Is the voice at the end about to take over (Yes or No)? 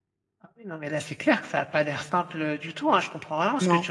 No